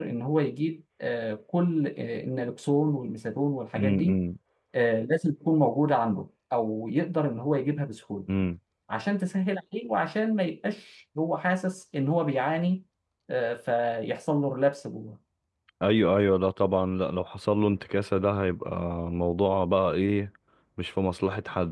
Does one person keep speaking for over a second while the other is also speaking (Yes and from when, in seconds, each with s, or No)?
No